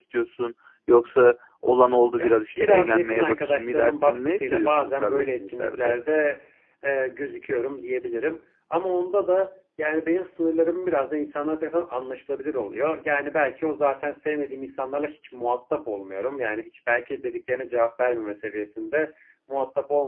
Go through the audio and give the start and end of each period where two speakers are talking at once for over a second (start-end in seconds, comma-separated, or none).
2.1-5.9